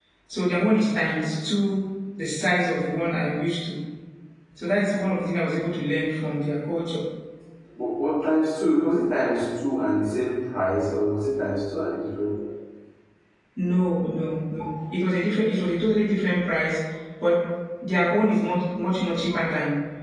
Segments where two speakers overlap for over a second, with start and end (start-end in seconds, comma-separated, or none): none